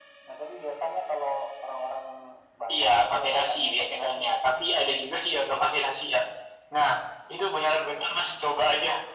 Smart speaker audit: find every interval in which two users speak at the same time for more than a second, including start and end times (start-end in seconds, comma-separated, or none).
2.7-4.4